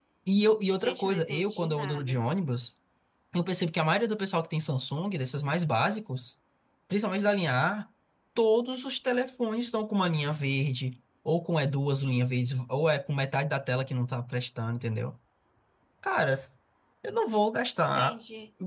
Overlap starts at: 0.8 s

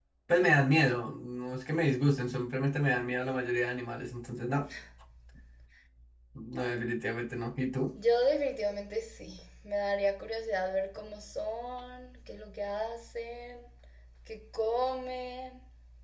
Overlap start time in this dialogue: none

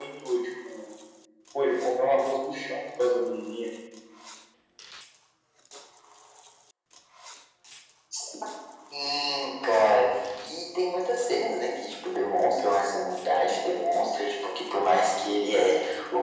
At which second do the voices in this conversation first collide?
none

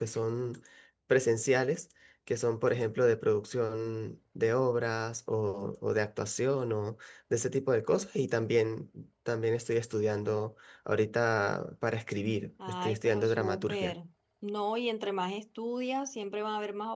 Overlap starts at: 12.6 s

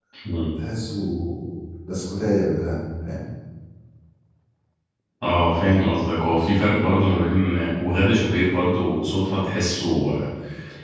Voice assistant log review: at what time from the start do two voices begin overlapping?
none

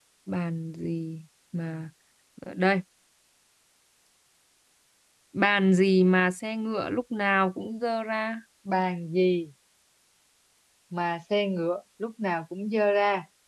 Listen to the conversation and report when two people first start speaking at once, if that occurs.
none

